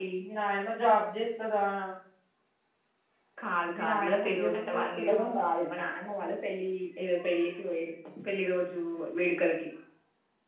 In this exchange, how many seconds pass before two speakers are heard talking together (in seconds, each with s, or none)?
3.8 s